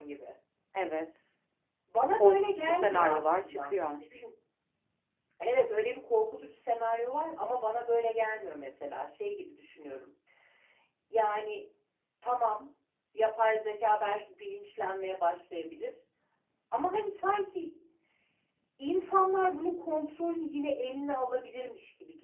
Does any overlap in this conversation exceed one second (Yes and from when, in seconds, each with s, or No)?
Yes, from 2.2 s